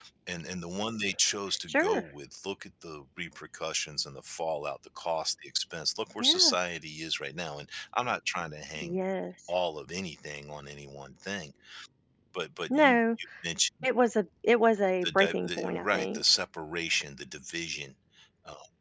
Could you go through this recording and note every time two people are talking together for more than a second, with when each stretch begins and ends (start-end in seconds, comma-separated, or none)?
15.0-16.2